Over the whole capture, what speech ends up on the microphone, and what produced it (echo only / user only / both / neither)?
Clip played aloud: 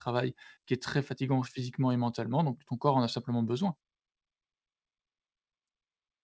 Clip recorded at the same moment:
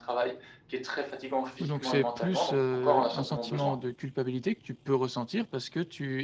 both